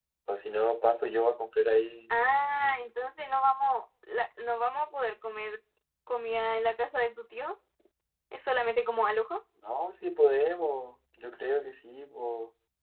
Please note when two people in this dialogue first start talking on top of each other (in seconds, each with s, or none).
none